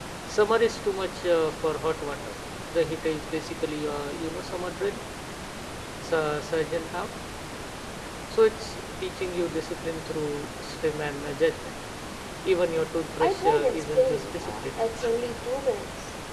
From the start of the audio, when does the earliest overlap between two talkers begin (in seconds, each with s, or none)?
13.2 s